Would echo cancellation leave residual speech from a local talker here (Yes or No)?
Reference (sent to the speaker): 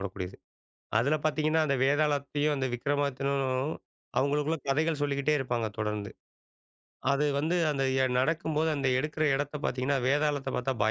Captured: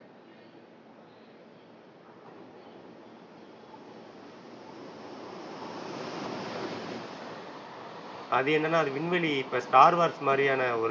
Yes